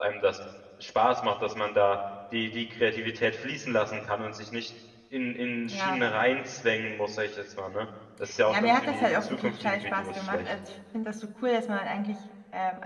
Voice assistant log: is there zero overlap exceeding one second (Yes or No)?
No